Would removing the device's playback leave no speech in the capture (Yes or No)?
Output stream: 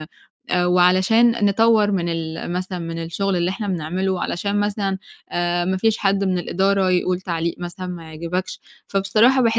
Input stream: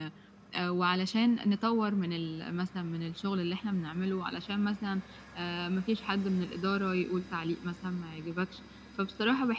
Yes